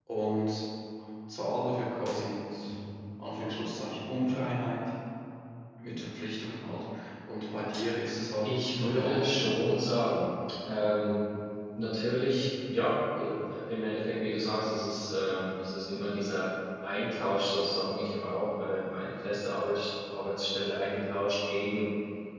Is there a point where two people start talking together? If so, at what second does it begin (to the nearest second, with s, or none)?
8 s